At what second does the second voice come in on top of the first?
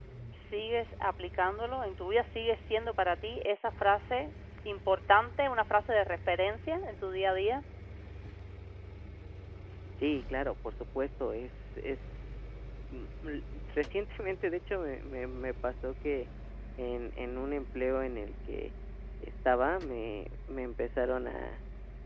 none

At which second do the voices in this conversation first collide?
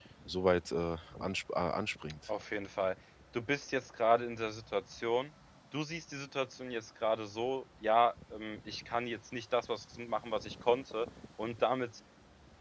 none

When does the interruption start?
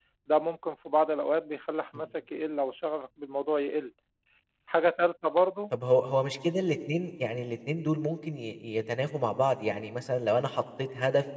none

